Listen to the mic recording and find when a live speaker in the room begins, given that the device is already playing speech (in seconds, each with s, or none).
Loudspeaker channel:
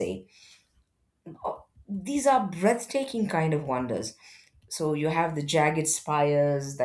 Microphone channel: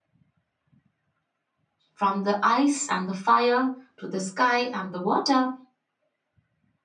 1.9 s